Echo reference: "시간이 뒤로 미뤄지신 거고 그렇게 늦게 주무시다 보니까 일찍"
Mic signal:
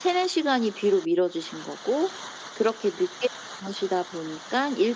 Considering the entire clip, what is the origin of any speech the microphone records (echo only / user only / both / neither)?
echo only